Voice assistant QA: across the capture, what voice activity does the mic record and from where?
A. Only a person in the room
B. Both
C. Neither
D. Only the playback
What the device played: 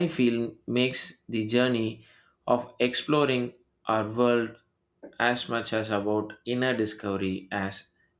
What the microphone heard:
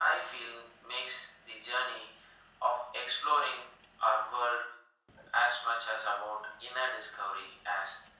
D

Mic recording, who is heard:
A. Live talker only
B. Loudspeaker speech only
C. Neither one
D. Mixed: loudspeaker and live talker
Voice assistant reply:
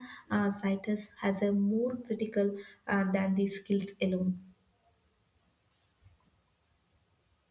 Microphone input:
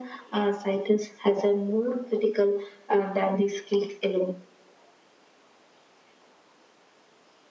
B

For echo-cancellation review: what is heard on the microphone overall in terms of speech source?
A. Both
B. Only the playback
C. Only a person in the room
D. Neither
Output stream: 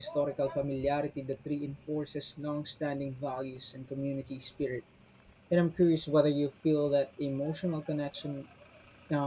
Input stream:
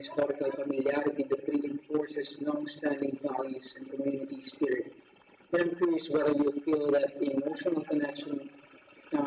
B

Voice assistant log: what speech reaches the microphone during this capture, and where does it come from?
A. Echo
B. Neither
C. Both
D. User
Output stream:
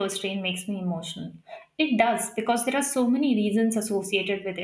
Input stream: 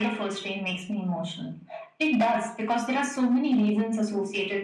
A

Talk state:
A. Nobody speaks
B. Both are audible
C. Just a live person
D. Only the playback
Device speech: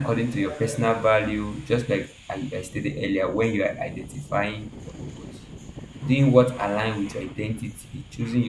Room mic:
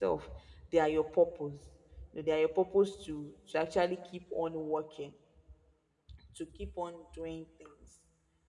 C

